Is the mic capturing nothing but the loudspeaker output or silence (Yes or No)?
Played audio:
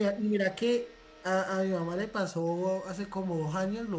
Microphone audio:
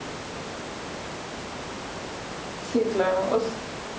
No